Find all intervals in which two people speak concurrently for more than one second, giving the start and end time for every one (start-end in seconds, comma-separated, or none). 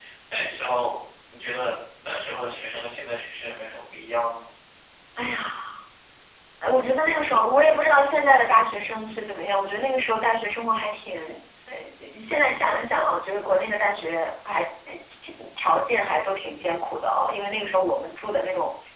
none